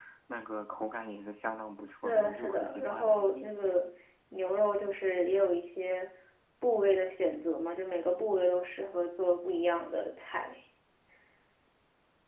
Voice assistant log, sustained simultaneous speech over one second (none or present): present